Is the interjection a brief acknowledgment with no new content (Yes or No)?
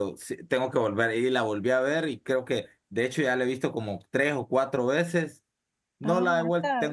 Yes